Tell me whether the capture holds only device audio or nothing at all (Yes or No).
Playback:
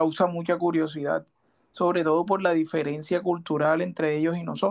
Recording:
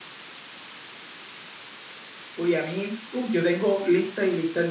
No